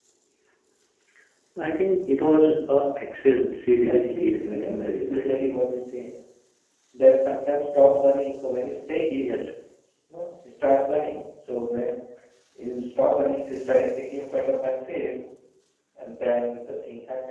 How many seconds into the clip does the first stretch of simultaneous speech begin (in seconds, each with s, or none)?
3.8 s